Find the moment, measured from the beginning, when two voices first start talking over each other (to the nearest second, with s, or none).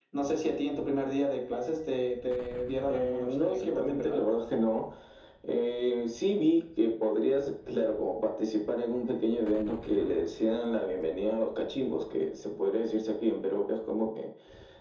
3 s